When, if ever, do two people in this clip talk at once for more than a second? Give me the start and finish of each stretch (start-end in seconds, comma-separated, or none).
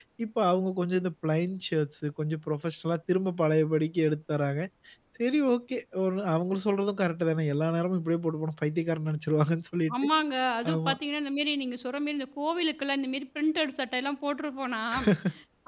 none